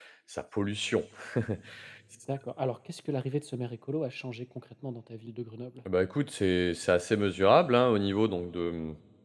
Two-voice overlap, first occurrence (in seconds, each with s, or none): none